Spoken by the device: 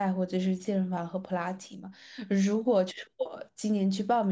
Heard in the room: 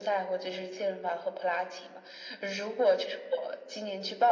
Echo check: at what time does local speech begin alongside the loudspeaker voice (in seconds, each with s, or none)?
none